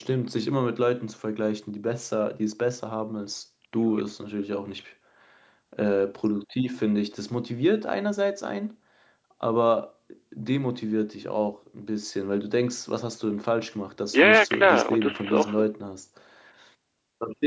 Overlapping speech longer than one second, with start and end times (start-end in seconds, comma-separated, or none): 14.1-15.6